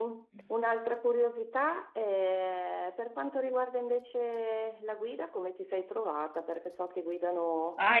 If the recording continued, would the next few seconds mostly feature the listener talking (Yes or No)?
Yes